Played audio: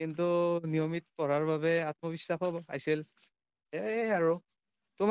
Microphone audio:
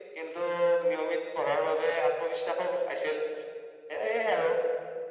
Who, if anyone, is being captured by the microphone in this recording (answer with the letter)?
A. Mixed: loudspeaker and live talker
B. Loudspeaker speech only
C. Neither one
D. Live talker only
B